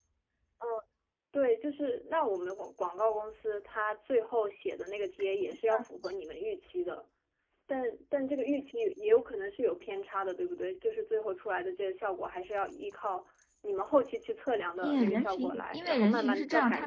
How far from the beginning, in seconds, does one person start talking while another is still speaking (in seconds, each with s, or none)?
14.8 s